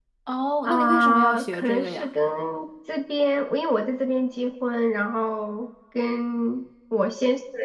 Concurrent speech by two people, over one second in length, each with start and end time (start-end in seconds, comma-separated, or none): 0.6-2.1